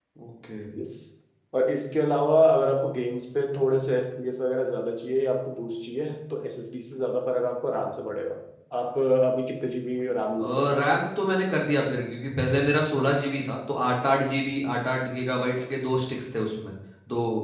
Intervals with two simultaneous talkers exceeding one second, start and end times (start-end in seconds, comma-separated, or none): none